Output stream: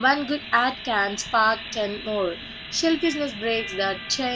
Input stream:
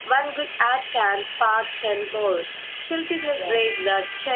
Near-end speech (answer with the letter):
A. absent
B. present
B